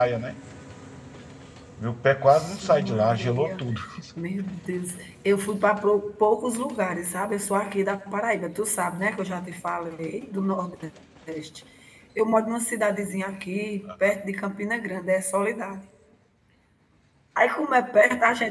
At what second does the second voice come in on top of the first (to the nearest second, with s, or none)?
2 s